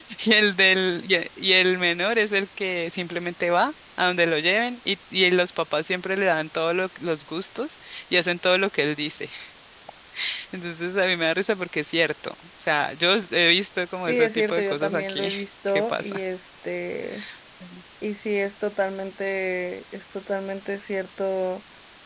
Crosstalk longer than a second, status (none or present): present